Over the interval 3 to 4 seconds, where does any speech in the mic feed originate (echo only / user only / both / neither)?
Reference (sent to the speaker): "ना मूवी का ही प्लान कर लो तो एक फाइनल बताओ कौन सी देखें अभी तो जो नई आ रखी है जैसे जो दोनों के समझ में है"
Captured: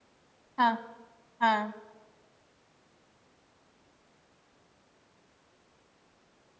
neither